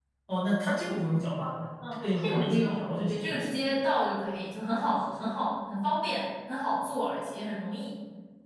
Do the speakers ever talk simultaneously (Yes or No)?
Yes